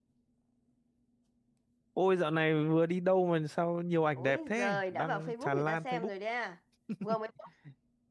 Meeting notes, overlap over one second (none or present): present